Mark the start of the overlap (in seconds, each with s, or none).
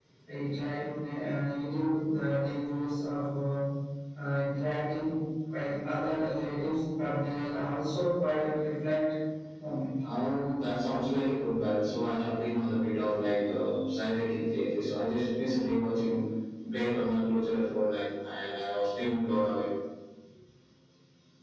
none